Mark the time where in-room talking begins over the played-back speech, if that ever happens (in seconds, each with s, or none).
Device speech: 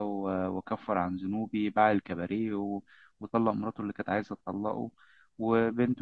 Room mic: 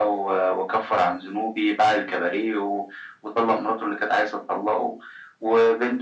none